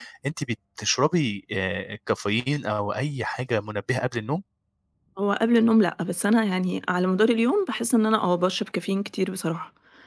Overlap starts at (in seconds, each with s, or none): none